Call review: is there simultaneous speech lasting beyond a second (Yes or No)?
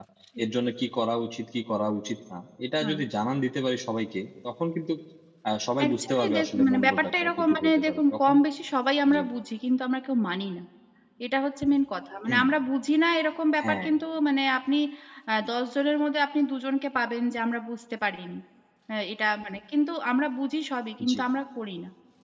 Yes